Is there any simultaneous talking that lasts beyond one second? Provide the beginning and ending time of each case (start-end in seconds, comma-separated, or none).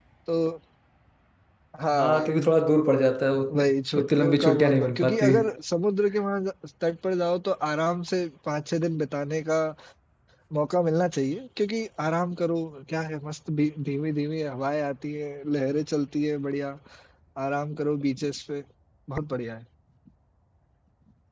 4.0-5.3